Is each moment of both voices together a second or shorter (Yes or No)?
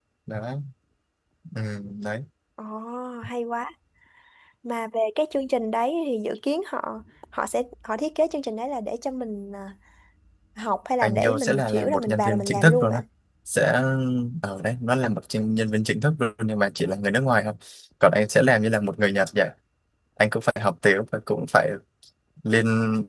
No